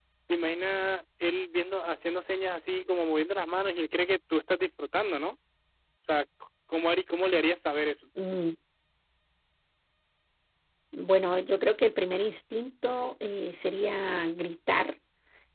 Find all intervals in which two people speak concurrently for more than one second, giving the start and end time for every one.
none

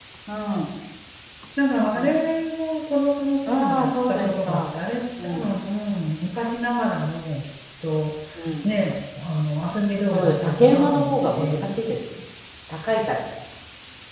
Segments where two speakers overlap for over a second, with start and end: 3.5-4.8, 10.1-11.7

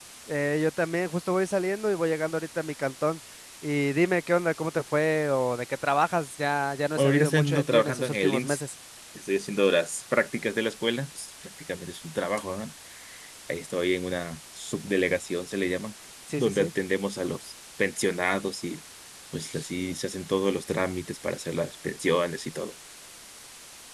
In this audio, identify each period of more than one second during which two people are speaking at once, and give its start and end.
7.0-8.6

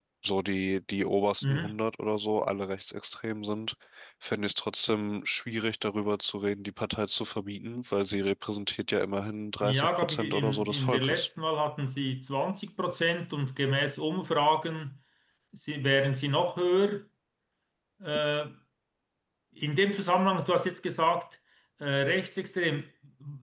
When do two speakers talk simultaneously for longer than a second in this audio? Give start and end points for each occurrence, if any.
9.6-11.3

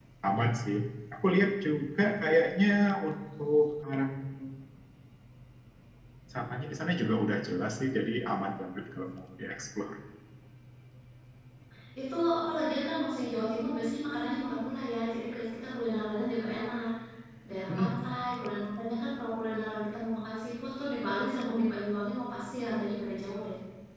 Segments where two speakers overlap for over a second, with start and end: none

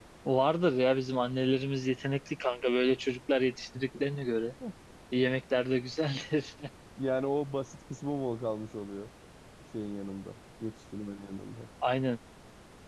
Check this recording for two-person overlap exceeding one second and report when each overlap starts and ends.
none

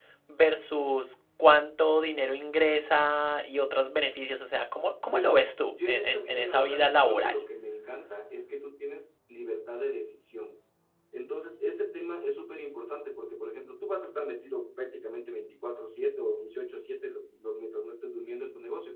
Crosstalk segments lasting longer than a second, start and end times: 5.0-7.4

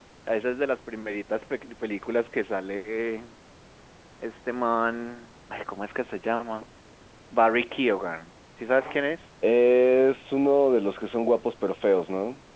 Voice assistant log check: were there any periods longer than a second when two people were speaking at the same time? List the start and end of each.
none

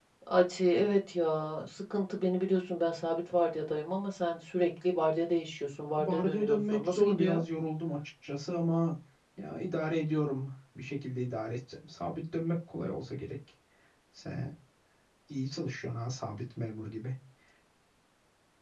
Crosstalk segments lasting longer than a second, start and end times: 5.9-7.4

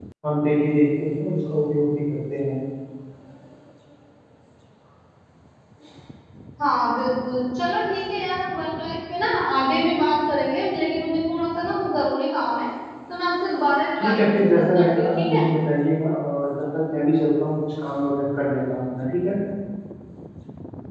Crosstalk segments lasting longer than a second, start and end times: 14.0-15.4

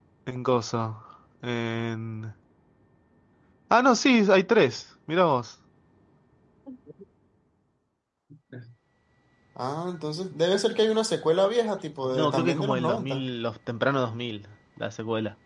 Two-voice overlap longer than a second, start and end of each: 12.1-13.3

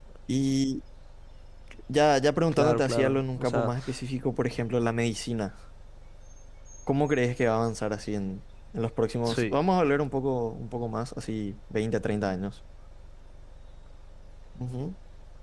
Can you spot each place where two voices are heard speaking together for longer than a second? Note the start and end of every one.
2.5-3.7

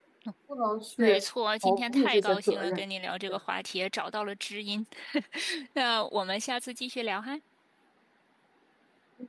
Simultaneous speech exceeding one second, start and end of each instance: 1.6-2.8

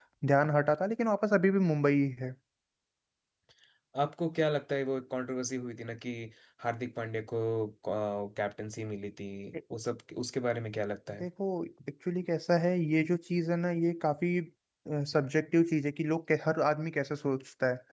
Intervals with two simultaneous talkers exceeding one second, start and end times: none

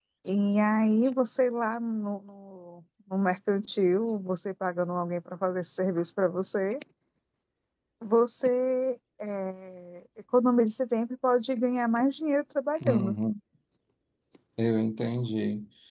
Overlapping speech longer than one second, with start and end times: none

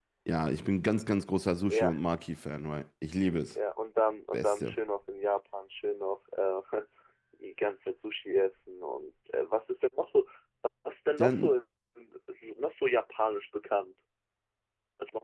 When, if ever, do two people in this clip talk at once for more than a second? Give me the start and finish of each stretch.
none

